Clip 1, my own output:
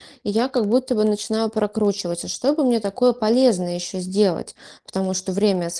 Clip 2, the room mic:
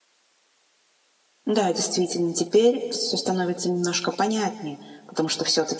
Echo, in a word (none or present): none